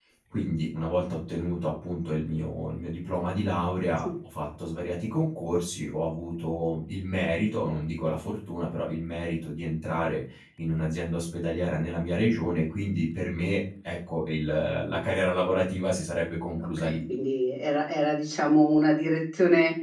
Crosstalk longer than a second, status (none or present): none